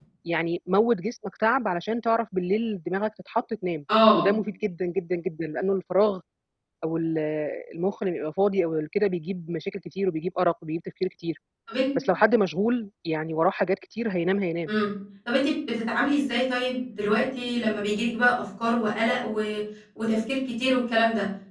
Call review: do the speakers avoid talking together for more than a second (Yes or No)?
Yes